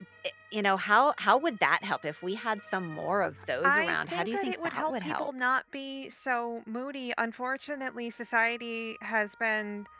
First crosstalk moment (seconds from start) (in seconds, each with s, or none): 3.6 s